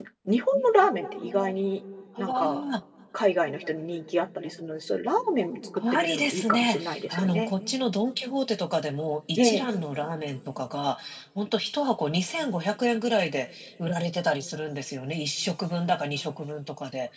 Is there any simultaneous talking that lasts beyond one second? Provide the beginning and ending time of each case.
5.9-7.5

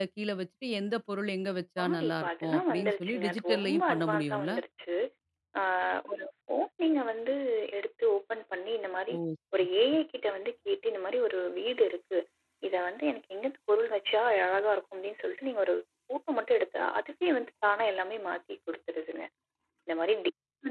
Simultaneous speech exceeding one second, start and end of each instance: 1.8-4.5

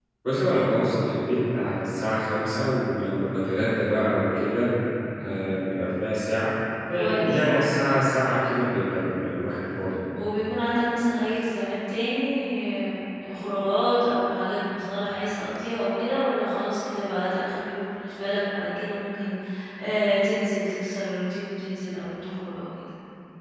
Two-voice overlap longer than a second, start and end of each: none

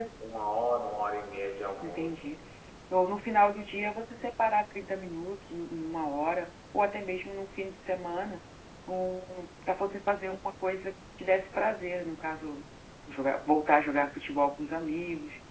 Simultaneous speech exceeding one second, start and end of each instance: none

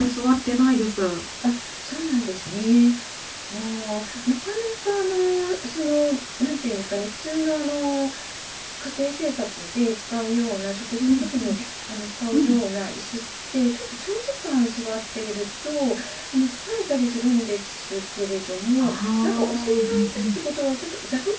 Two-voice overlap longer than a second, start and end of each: 18.8-20.4

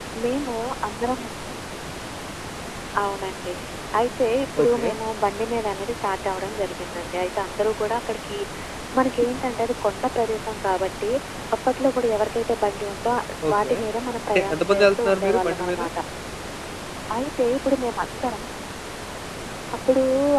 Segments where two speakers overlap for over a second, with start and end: 14.3-15.8

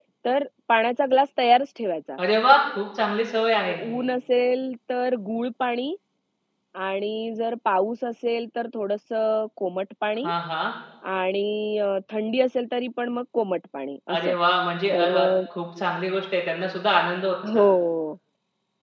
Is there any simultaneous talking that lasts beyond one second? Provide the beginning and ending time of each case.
none

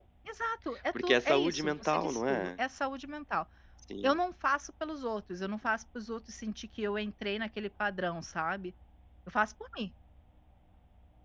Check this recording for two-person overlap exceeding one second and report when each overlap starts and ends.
1.0-2.5

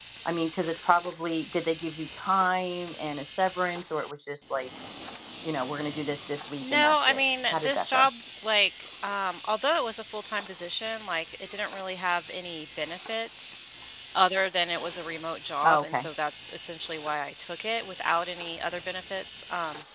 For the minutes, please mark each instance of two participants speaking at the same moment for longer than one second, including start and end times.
6.6-8.1

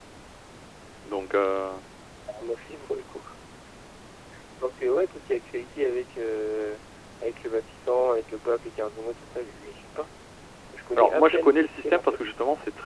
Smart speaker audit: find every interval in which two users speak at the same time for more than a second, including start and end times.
11.0-12.2

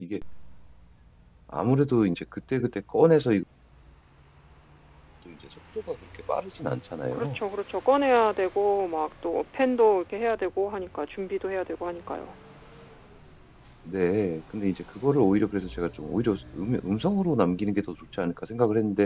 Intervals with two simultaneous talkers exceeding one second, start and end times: none

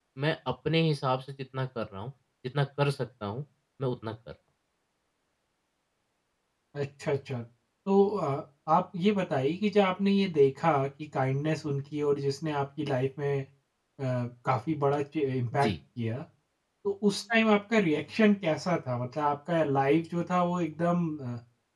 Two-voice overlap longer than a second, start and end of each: none

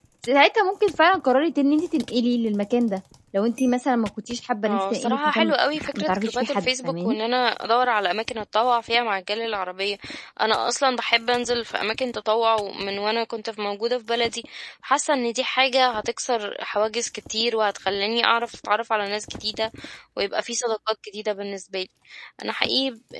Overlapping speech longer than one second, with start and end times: 4.7-7.2

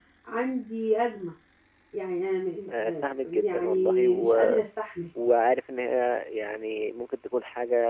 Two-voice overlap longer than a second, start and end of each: 2.7-4.6

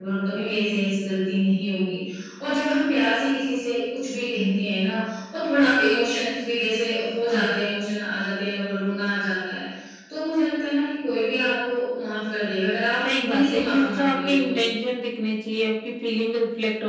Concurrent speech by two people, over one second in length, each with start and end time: 13.2-14.6

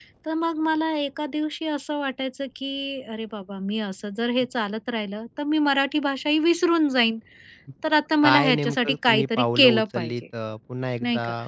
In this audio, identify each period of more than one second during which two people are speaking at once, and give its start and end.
8.2-10.1

